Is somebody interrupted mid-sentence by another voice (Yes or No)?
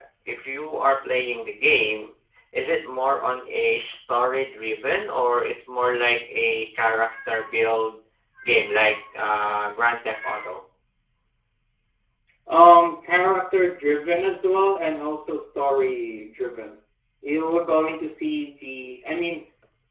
No